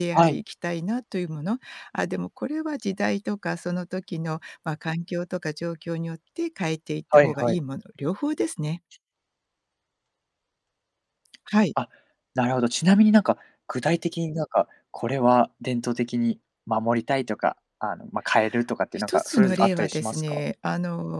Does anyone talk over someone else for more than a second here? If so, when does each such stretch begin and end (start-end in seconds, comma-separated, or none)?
19.1-20.4